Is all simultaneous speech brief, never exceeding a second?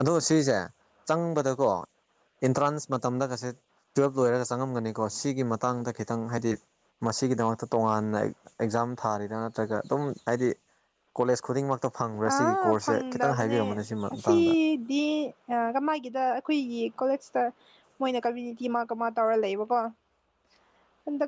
No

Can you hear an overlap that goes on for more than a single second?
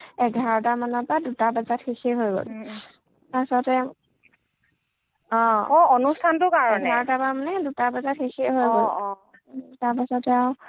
No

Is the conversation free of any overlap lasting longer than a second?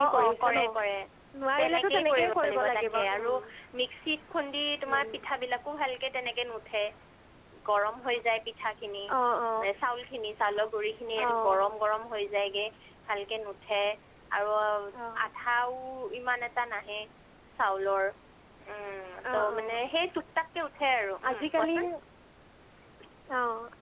No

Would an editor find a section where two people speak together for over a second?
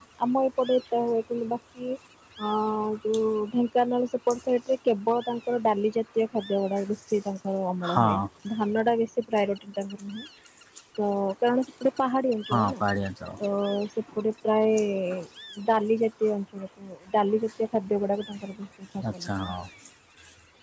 No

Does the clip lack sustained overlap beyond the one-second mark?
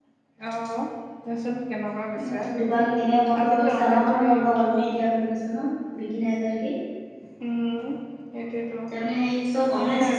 No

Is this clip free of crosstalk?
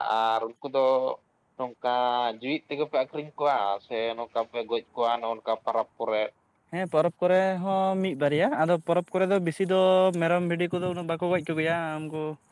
Yes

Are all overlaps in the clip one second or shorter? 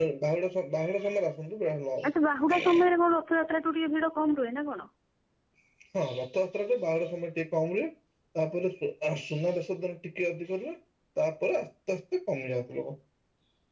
Yes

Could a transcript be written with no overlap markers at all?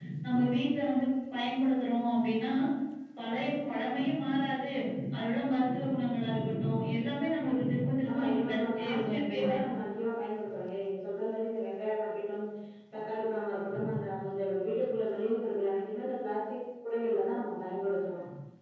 No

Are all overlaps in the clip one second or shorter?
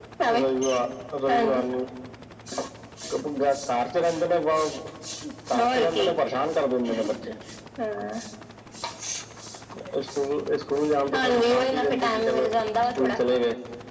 No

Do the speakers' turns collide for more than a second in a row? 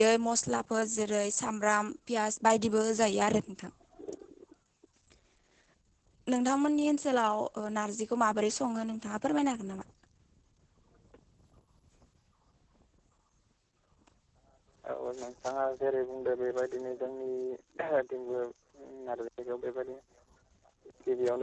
No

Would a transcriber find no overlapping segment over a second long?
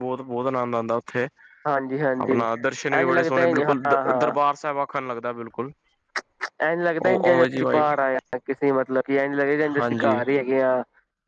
No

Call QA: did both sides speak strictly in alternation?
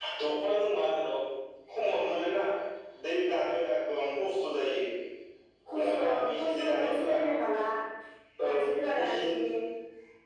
No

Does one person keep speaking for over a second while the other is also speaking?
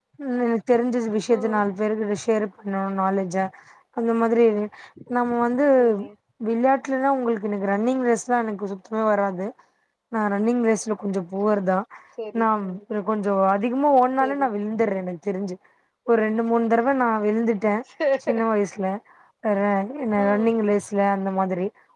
No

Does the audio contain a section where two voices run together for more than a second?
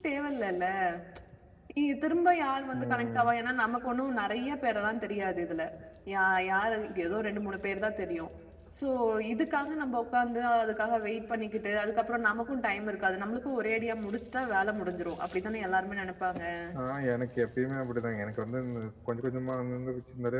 No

